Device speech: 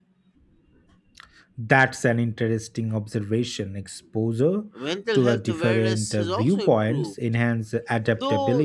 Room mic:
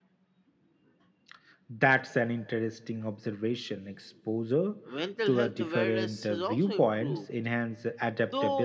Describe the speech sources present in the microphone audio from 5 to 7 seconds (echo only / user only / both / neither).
echo only